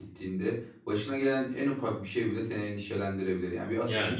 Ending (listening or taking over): listening